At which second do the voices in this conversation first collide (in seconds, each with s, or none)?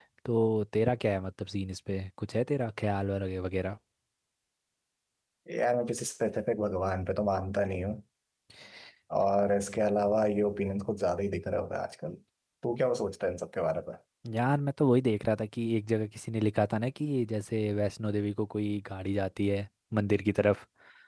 none